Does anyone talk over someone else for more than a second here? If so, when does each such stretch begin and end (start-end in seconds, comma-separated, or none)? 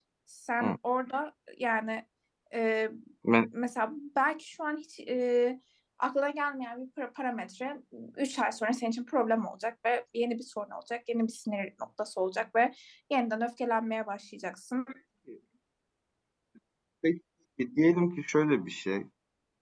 none